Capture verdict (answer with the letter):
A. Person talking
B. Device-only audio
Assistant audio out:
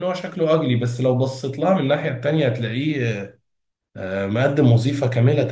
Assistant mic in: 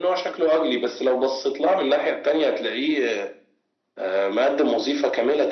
B